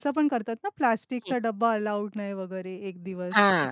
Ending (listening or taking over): taking over